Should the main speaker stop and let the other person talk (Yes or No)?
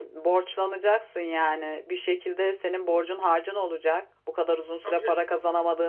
No